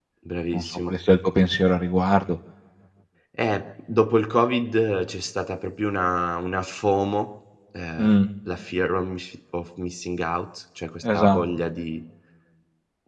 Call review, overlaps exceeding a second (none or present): none